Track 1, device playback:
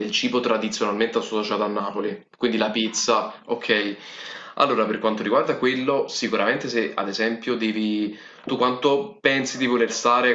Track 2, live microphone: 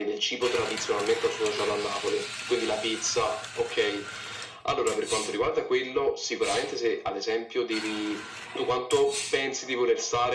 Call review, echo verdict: present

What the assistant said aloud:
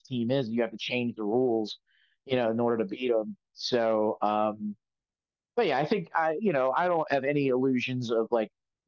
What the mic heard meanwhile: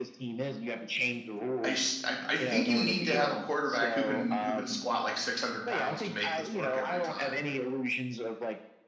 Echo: present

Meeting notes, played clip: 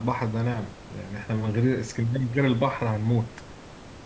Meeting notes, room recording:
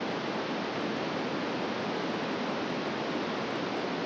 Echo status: none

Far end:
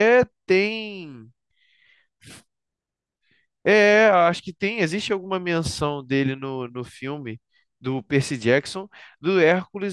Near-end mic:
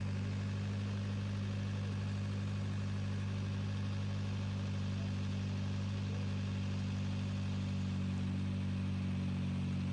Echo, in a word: none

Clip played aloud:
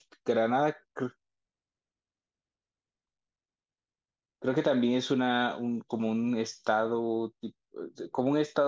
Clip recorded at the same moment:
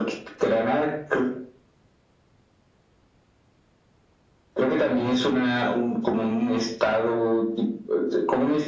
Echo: present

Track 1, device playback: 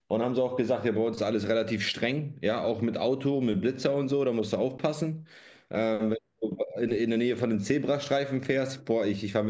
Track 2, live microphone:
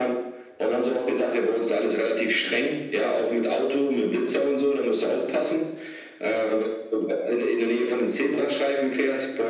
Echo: present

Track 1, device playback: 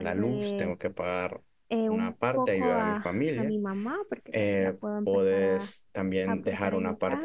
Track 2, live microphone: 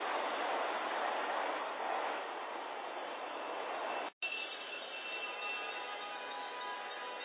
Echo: none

